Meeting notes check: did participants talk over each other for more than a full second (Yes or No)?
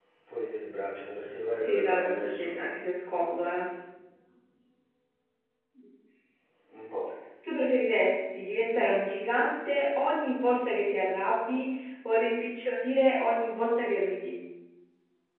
Yes